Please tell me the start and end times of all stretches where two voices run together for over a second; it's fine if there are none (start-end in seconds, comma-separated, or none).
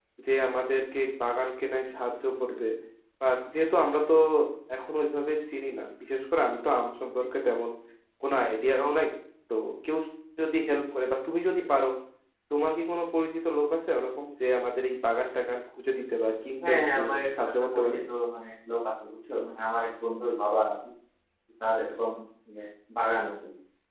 16.7-18.0